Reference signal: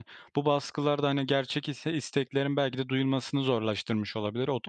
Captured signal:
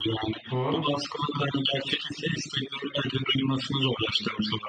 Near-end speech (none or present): present